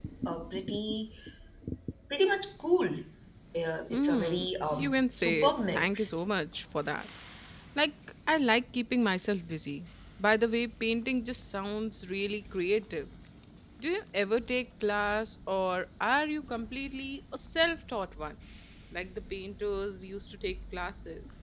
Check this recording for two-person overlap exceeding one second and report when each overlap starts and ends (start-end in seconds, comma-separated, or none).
3.9-6.1